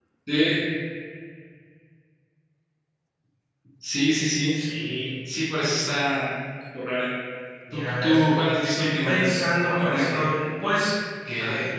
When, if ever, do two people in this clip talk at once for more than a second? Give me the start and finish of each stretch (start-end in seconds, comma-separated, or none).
7.7-10.2